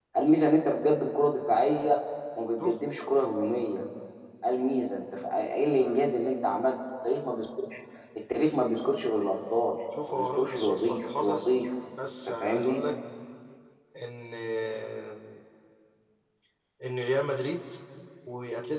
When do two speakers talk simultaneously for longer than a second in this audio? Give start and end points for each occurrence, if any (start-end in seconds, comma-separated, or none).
10.1-11.4